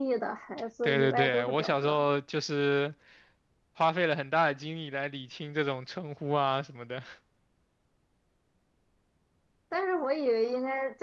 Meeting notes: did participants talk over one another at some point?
Yes, from 0.8 s

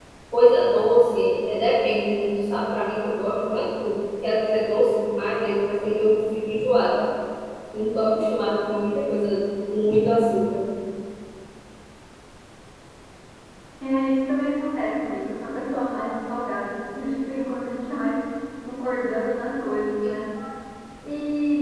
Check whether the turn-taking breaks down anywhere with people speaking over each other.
No

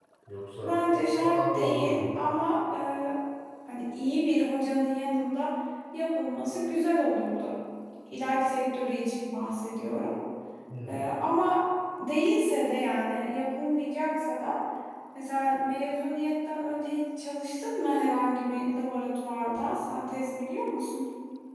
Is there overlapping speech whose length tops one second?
Yes, from 0.6 s

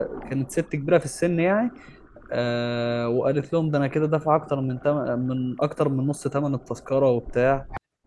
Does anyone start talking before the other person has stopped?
No

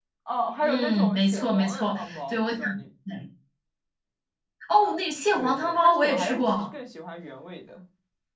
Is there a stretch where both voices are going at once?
Yes, from 0.6 s

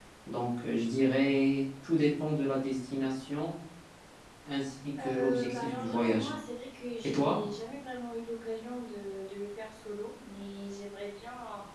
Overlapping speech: Yes, from 5.0 s

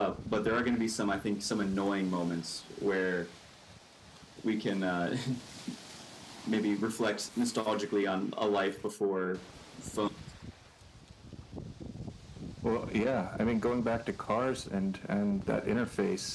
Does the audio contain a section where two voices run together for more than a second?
No

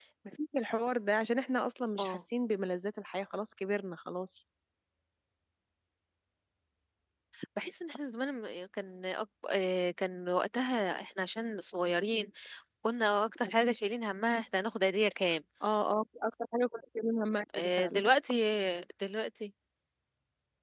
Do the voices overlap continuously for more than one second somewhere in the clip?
No

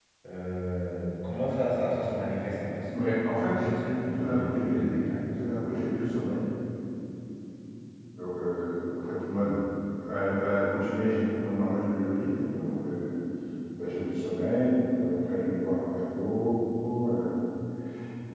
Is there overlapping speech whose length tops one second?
Yes, from 3.3 s

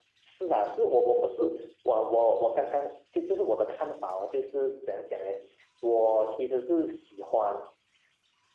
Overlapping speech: No

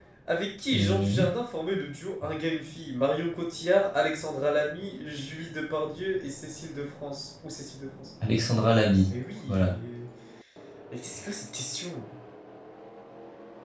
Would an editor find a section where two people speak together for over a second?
No

